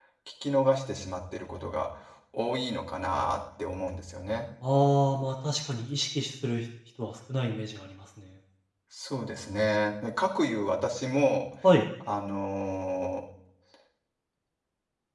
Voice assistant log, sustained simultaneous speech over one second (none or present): none